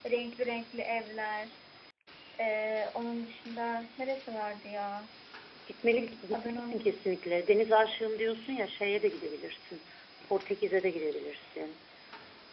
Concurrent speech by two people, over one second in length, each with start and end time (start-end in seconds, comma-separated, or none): none